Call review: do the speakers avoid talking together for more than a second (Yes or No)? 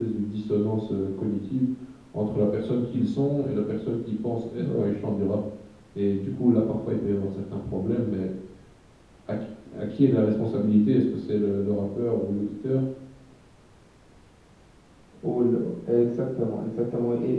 Yes